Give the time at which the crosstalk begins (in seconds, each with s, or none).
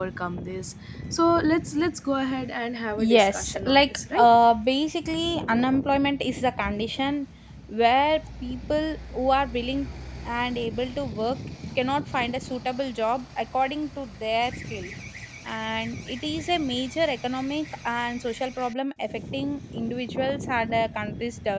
3.0 s